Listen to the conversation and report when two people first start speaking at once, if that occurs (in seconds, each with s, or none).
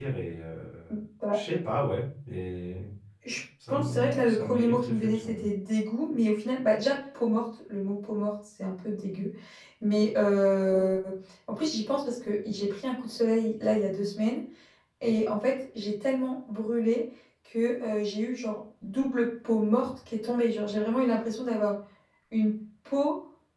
3.7 s